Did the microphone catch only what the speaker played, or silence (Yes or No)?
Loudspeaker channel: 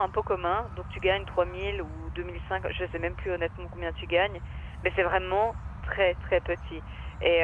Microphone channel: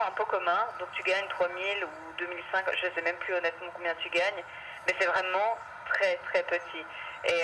Yes